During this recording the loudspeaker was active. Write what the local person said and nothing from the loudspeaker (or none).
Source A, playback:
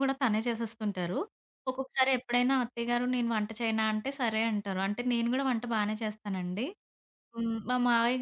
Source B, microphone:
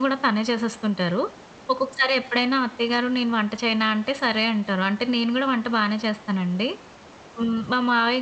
none